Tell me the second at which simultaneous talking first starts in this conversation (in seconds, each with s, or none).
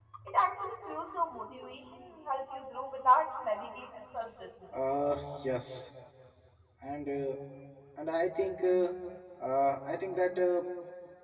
none